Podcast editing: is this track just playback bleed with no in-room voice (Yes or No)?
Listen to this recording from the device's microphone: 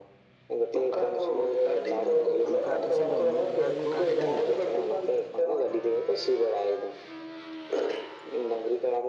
No